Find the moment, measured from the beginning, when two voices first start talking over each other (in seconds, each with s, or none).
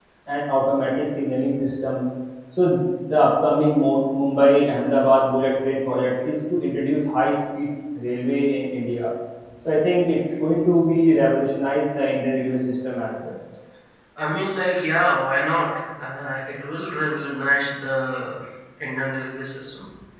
none